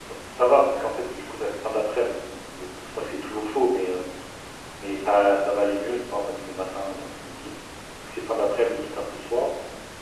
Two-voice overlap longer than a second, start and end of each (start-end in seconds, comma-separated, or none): none